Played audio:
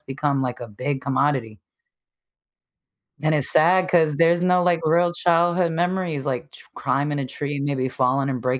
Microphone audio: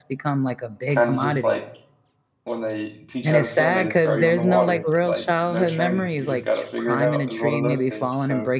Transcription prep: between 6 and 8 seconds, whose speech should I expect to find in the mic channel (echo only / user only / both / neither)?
both